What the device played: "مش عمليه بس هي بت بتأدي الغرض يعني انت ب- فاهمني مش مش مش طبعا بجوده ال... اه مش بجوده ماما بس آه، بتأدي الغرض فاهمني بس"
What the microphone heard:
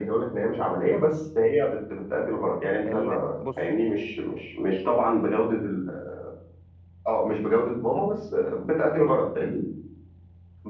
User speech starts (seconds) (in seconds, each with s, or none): 2.9 s